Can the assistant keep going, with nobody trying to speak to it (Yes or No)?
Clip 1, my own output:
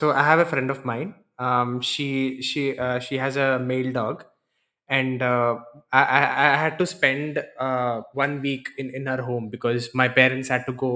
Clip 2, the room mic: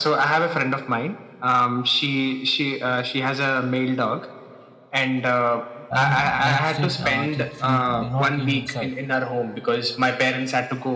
No